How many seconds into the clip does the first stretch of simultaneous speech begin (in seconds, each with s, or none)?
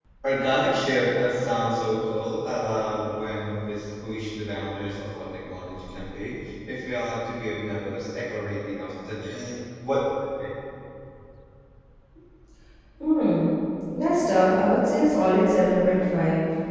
none